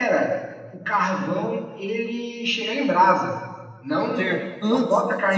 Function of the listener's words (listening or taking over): taking over